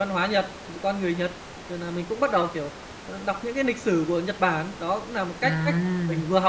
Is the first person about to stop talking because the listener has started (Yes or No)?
No